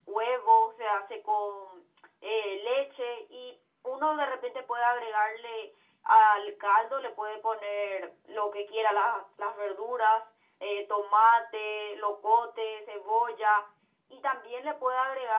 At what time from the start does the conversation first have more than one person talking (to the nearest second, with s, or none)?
none